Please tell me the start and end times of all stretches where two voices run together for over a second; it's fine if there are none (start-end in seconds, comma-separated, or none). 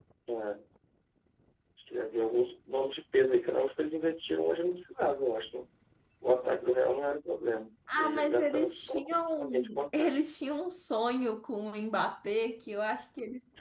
7.9-10.2